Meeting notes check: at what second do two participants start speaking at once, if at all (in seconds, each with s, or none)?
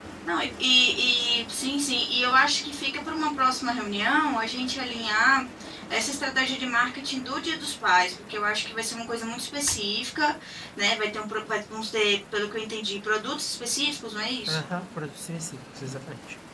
none